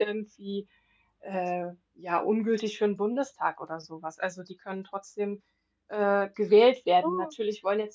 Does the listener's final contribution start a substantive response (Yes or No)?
No